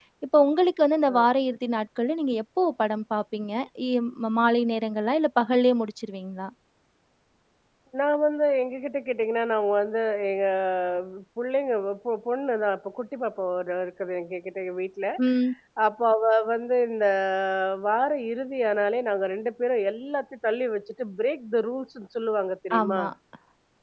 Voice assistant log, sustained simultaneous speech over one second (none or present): none